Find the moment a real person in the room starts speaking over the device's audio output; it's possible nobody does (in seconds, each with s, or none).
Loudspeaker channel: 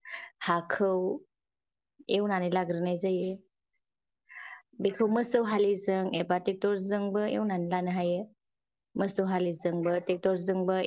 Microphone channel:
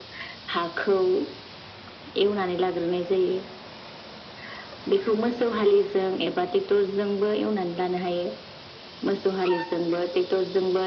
none